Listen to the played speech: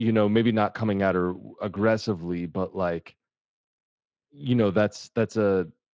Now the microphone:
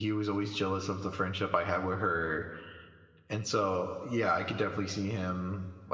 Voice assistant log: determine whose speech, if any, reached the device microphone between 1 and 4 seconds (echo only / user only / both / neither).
user only